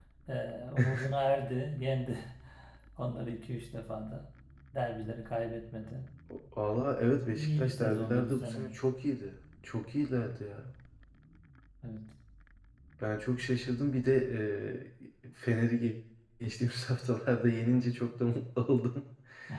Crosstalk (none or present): present